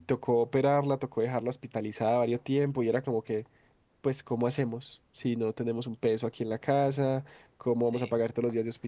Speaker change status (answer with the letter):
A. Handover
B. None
B